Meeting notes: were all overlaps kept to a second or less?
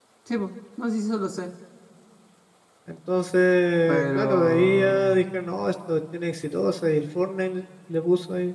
No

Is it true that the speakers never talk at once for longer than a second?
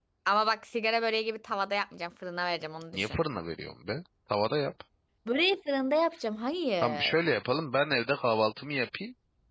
Yes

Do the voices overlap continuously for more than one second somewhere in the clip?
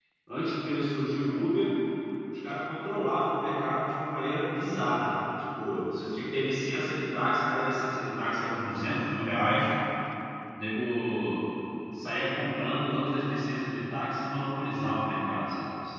No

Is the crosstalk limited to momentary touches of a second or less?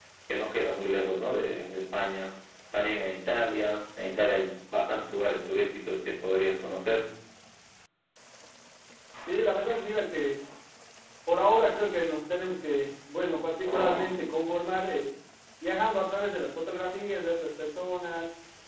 Yes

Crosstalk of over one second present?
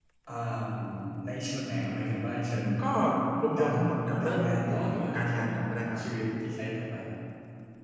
Yes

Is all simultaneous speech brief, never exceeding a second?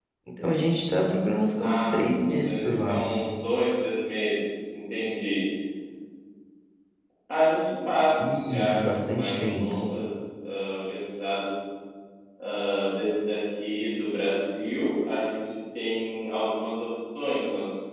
No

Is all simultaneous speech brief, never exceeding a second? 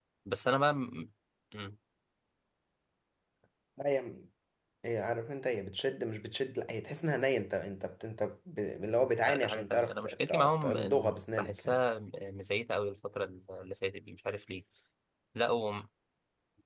No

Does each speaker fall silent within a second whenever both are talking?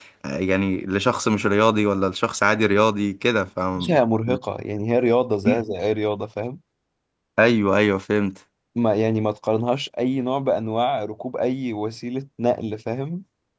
Yes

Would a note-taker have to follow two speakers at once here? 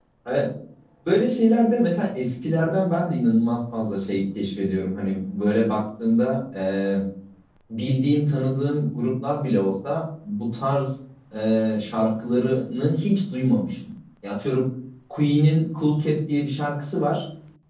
No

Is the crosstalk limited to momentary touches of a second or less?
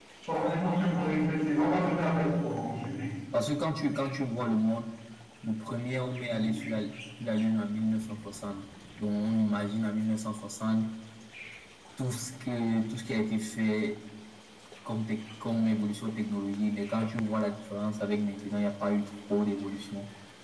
Yes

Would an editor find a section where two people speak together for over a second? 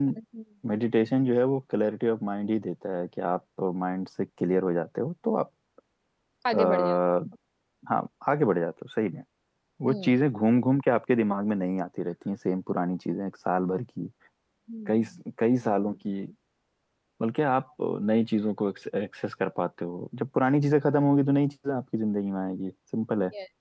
No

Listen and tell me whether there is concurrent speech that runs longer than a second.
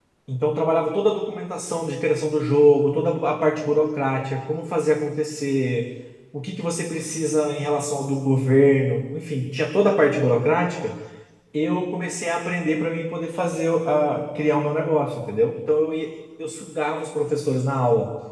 No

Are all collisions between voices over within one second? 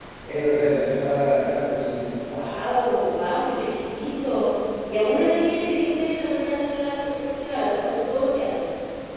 Yes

